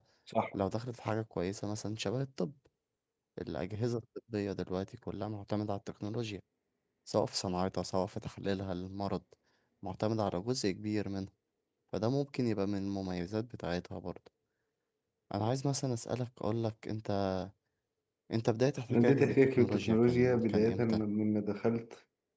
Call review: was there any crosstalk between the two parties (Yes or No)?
Yes